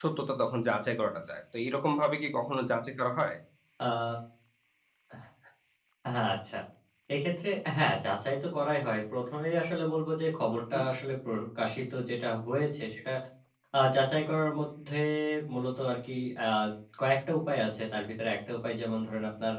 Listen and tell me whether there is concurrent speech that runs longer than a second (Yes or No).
No